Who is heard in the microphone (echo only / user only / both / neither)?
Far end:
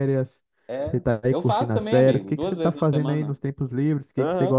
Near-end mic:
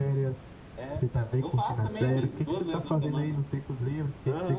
echo only